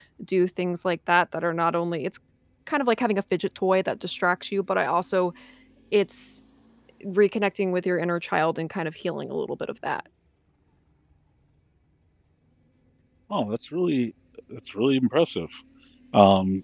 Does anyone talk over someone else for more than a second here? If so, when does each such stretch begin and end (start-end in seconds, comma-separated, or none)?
none